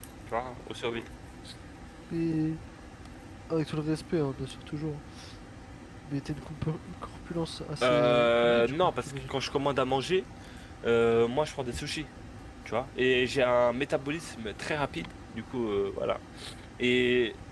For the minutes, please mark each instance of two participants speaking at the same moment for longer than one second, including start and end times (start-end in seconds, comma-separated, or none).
7.8-9.3